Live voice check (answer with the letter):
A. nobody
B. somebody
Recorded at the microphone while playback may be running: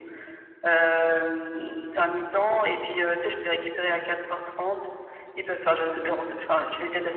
A